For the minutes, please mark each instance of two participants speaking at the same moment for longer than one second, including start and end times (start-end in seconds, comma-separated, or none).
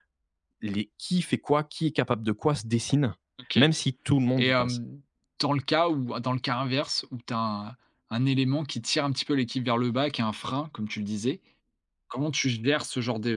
none